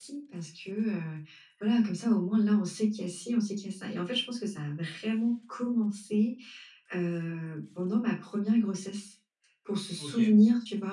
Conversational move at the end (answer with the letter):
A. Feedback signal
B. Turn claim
A